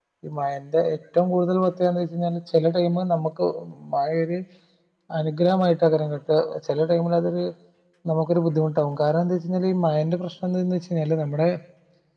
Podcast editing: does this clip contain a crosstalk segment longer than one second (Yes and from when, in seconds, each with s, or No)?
No